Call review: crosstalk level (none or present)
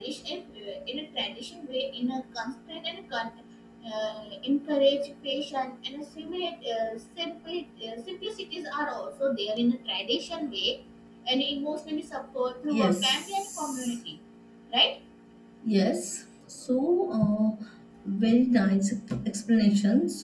present